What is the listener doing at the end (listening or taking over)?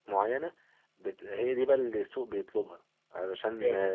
listening